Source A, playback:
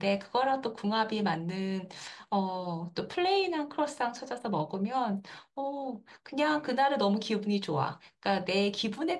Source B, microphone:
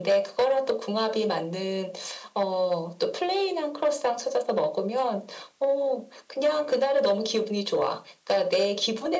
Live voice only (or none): none